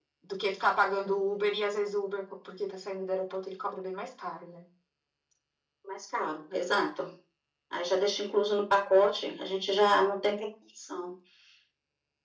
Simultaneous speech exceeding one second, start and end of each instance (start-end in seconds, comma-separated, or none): none